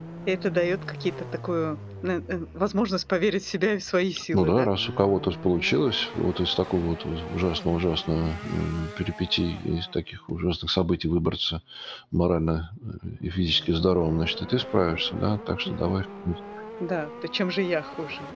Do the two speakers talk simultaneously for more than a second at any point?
No

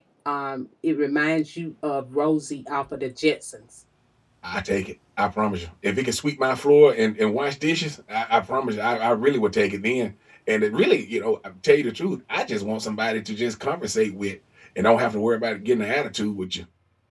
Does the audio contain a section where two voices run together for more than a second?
No

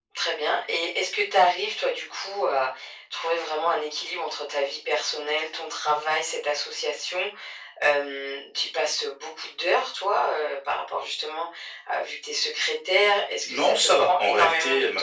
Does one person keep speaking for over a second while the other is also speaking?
Yes, from 13.4 s

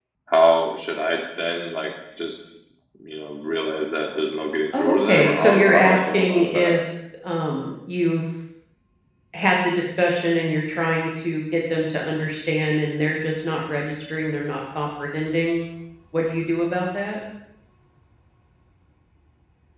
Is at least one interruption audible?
Yes, from 4.7 s

